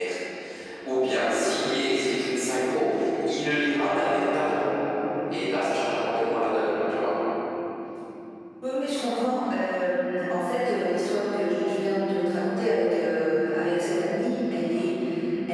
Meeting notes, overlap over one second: none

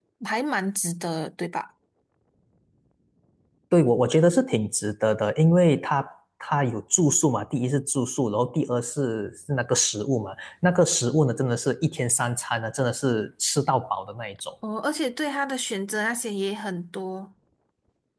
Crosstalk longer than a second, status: none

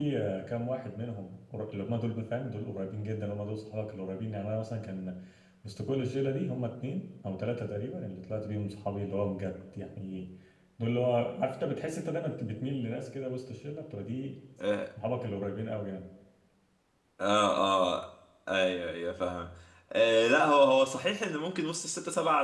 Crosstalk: none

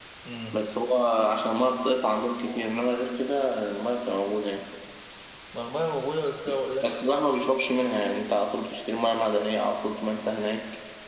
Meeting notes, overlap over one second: none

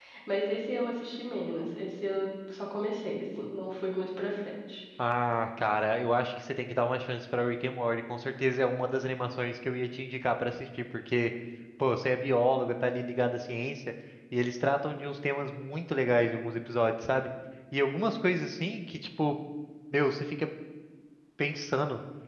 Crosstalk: none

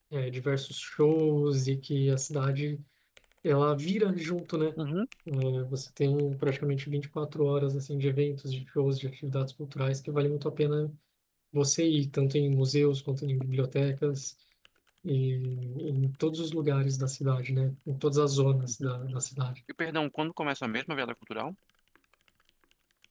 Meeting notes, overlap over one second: none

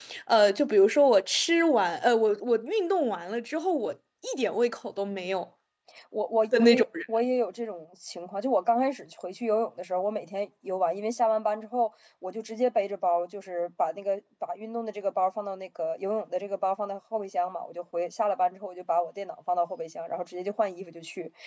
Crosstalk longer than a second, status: none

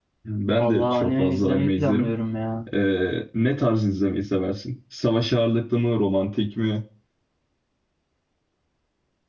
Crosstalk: present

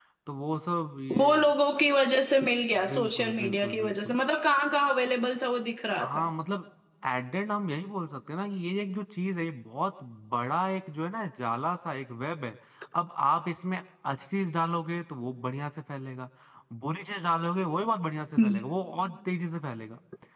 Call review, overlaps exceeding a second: present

